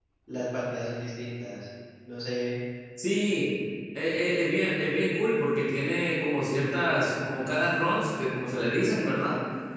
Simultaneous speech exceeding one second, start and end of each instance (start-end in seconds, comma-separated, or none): none